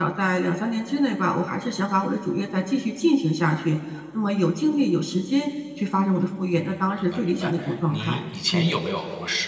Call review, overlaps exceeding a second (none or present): present